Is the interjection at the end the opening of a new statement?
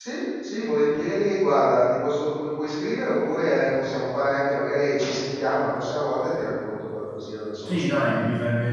Yes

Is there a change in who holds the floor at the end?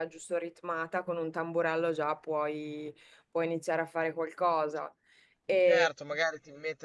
Yes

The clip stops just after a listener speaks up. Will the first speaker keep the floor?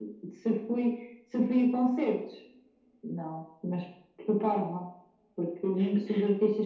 Yes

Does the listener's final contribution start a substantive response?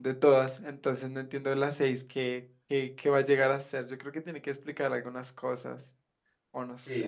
Yes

